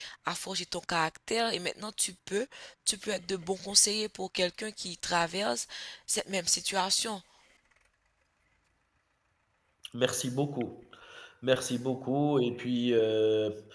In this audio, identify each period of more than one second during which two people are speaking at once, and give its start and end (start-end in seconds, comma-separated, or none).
none